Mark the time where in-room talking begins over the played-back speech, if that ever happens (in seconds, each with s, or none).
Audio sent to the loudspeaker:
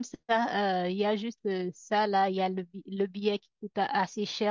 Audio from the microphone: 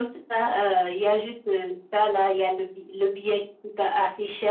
none